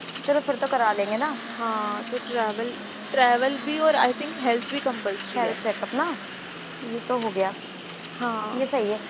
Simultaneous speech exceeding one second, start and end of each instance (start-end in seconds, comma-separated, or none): none